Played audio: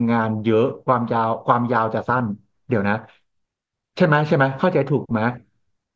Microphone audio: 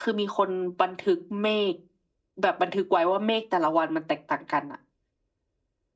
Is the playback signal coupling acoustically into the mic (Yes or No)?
No